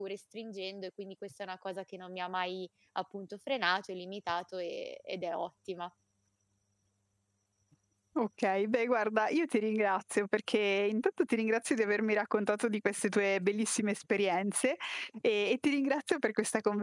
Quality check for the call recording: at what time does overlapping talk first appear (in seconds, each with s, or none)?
none